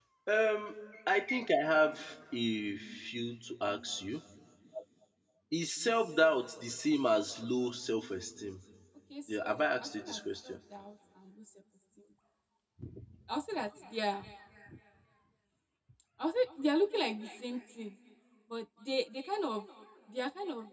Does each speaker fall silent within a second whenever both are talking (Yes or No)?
No